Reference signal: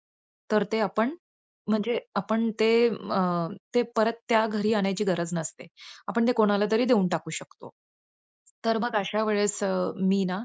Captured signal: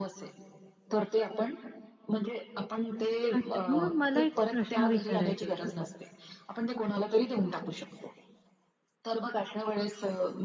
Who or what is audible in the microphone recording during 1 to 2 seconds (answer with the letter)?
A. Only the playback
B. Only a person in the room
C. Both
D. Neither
A